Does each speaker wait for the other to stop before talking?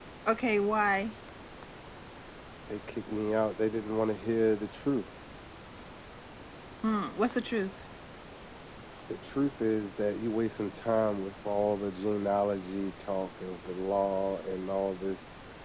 Yes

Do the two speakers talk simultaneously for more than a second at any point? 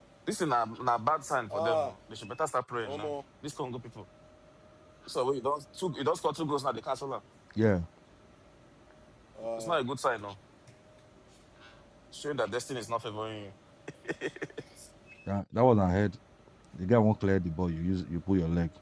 No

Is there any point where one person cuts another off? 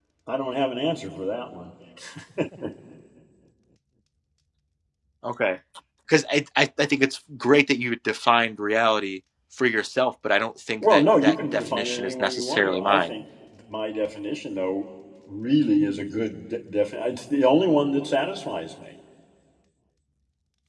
Yes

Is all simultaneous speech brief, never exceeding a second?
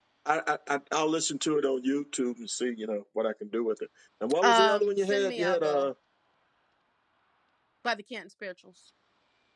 No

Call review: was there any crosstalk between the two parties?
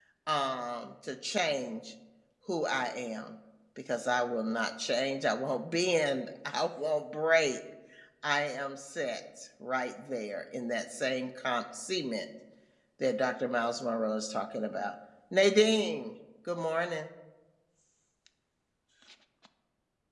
No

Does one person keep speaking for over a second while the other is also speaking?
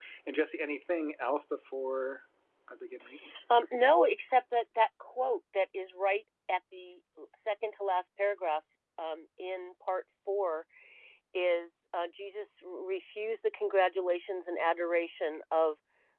No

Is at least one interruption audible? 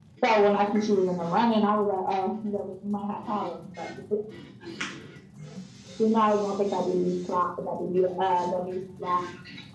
No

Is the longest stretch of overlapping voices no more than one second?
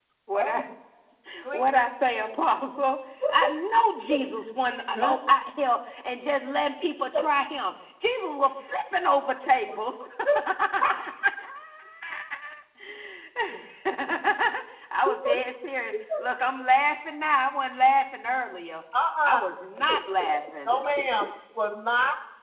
Yes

